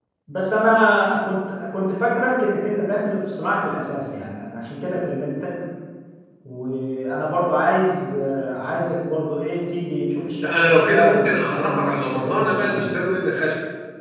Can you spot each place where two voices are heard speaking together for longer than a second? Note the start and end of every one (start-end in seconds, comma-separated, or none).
10.4-12.9